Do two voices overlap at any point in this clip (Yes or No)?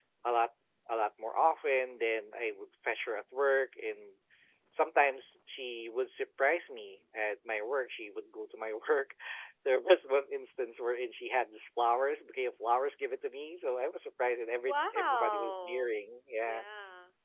Yes